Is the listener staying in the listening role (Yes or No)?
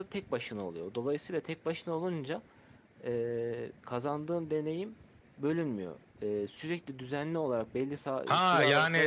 No